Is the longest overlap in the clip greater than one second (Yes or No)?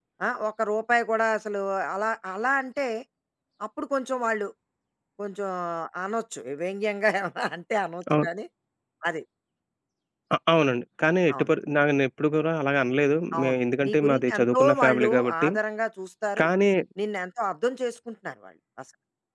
Yes